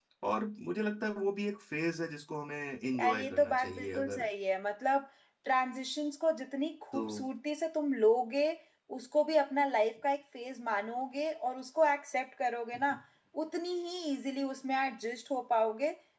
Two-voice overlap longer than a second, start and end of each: 3.0-4.2

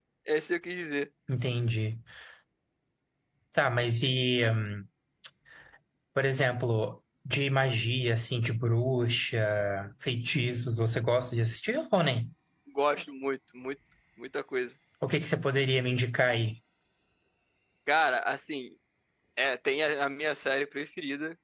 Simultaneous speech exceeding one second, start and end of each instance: none

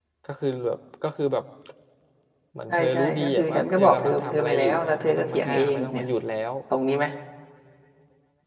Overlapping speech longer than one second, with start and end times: 2.7-6.0

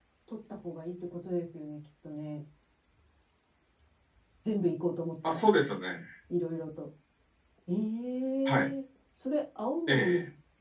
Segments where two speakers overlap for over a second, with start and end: none

